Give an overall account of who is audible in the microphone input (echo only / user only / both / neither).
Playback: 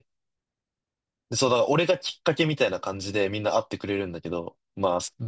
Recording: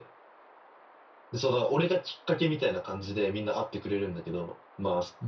echo only